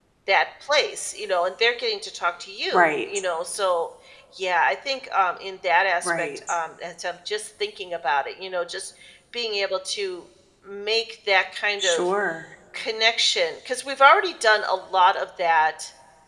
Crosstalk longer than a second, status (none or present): none